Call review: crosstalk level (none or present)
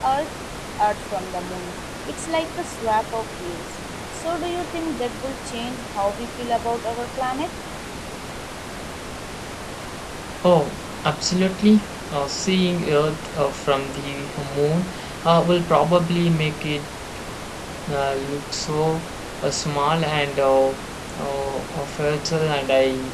none